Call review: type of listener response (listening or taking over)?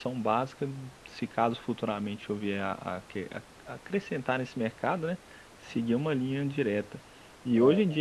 listening